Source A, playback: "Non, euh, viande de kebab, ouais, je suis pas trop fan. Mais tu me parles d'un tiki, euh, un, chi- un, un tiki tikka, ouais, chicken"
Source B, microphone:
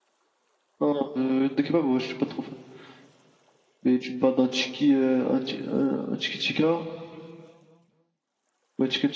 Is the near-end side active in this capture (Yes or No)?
No